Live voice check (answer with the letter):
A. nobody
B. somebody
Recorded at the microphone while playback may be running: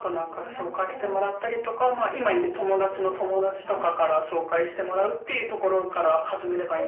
B